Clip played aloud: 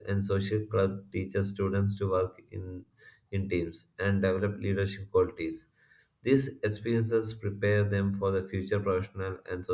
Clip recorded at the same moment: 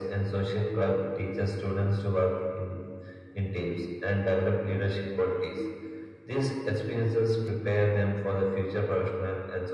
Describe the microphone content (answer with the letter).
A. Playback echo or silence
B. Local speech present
A